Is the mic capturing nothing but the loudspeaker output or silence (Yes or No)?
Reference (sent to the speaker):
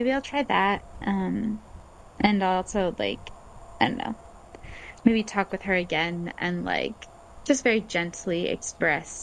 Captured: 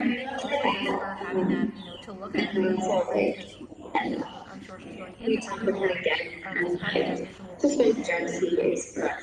No